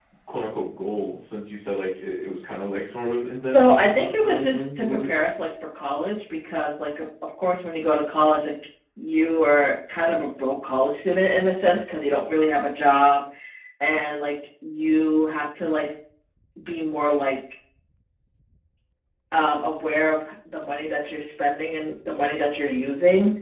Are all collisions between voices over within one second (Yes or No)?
No